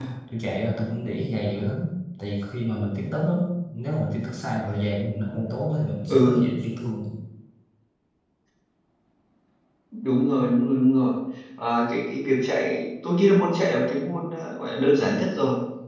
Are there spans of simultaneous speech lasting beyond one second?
No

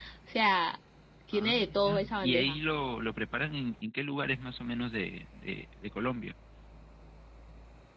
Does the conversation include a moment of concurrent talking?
Yes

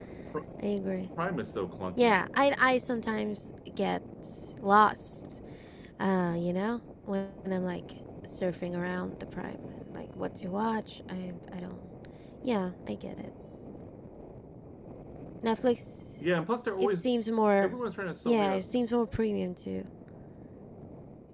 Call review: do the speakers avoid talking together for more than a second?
Yes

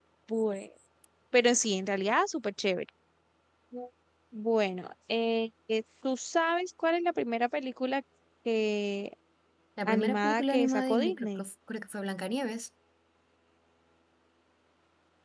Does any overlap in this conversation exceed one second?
Yes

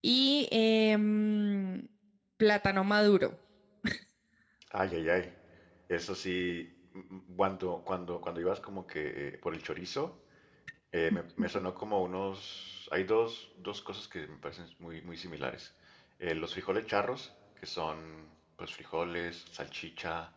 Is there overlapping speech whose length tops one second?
No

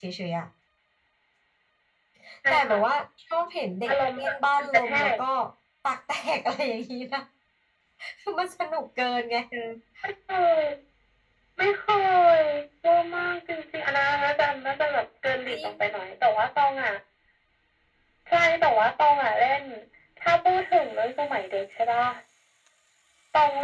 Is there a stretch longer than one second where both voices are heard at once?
Yes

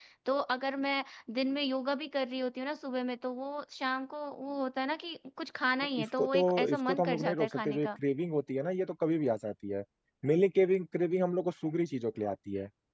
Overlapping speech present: Yes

